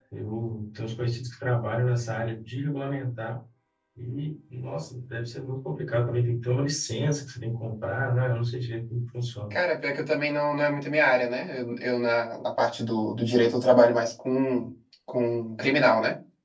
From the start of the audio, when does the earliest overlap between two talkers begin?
none

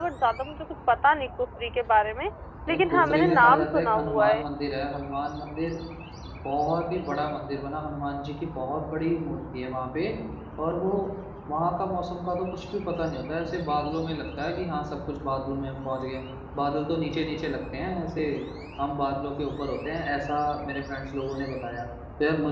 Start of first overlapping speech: 3 s

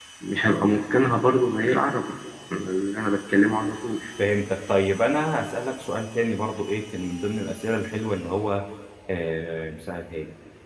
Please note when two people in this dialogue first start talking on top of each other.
none

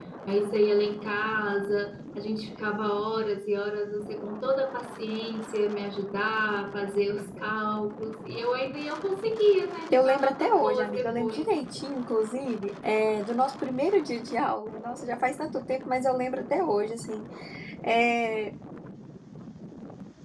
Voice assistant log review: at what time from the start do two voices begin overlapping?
10 s

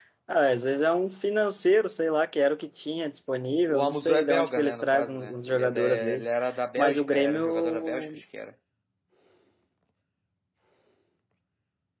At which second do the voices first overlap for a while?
4 s

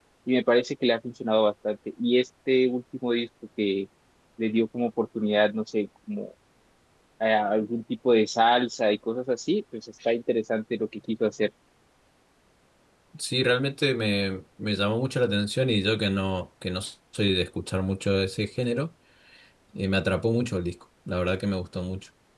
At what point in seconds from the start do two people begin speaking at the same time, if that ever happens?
none

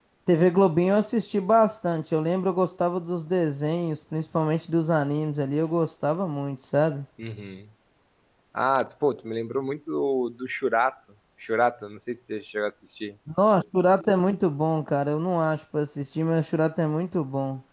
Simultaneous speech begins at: none

